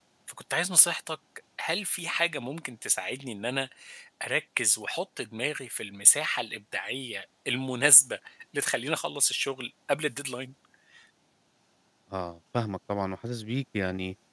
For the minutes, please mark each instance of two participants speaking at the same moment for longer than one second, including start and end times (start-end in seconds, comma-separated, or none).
none